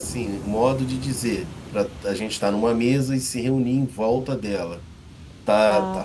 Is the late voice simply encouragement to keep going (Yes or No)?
Yes